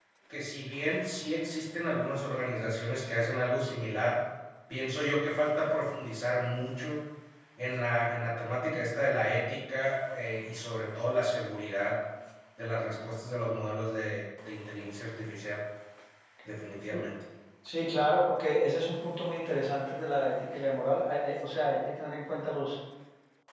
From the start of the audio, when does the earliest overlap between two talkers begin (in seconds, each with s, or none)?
none